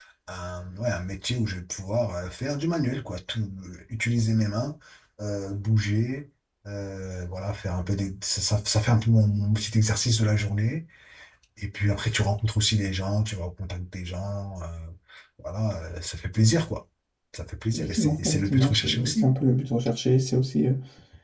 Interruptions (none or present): present